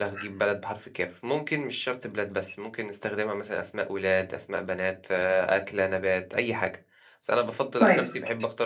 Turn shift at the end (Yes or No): No